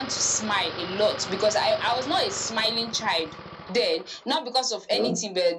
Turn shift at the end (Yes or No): No